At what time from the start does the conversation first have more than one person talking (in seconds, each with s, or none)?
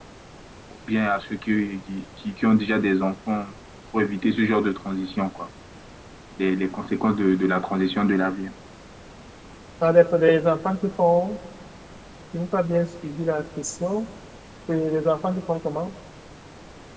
none